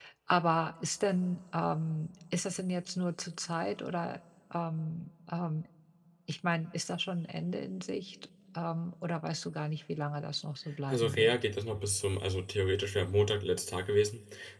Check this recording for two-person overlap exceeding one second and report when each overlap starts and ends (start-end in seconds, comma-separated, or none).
none